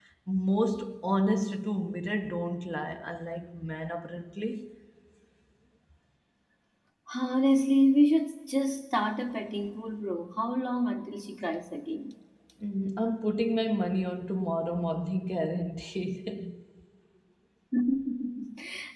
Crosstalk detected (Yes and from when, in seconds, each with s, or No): No